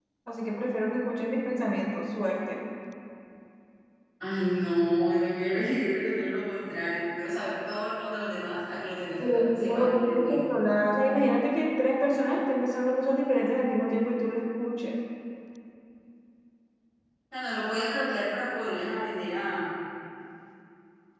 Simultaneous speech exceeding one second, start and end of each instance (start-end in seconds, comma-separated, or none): 9.2-10.4